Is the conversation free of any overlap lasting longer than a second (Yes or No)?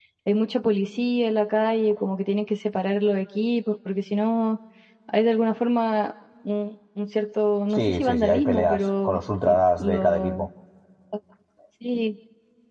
No